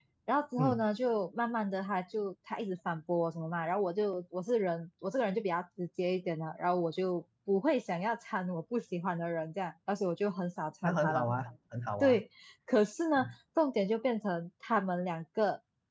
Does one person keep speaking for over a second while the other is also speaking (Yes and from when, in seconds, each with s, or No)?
No